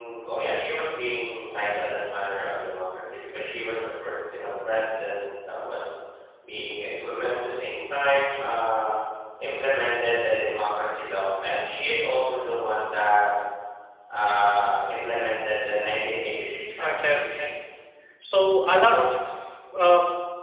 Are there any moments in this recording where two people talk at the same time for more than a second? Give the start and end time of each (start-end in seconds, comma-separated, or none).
16.3-17.5